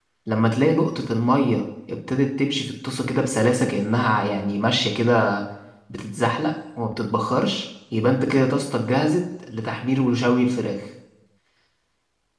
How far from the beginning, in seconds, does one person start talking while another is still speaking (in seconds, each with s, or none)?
none